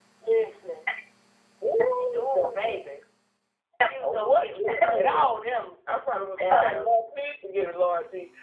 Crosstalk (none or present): present